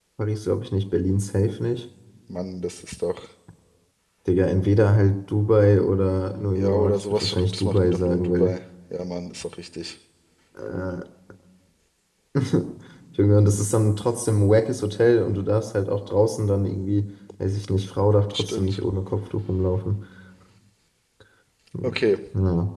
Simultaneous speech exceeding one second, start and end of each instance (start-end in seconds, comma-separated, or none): 6.5-8.5